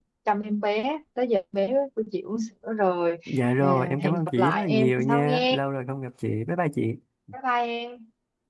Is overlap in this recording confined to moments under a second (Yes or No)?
No